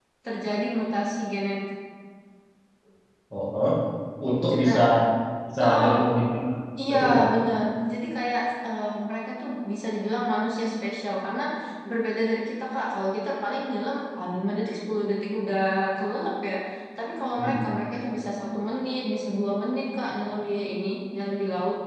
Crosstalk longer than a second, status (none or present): none